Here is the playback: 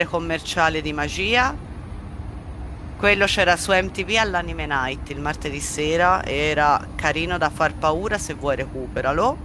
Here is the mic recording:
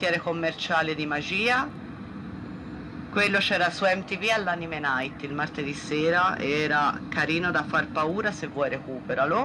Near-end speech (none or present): none